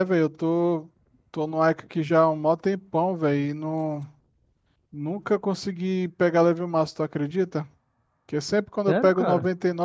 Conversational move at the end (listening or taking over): listening